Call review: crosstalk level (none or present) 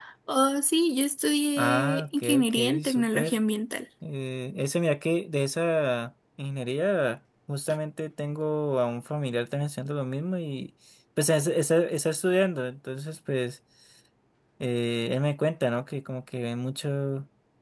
present